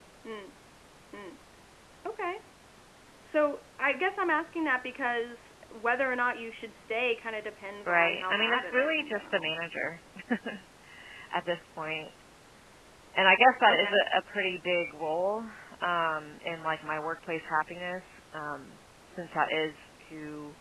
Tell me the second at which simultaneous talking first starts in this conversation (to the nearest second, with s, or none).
8 s